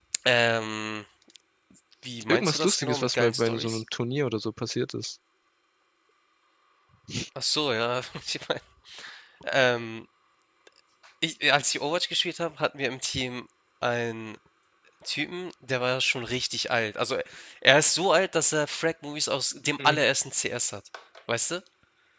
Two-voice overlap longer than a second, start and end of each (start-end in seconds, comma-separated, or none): 2.3-3.8